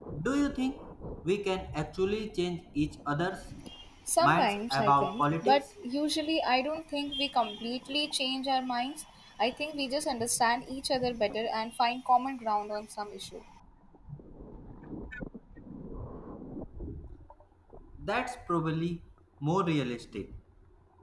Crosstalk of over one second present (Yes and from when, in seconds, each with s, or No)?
Yes, from 4.2 s